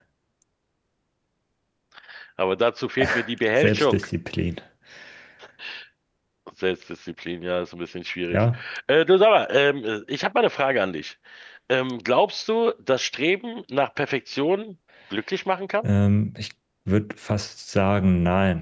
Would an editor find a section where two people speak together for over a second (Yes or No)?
No